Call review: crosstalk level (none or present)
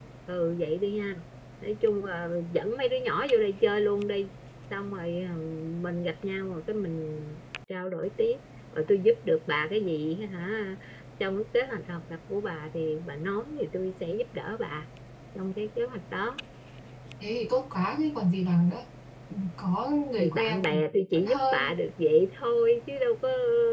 present